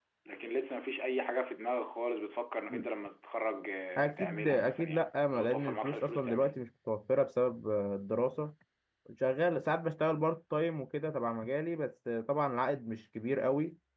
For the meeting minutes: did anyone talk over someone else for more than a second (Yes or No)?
Yes